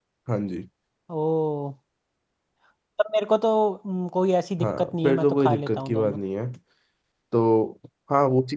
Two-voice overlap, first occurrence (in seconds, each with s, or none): 4.6 s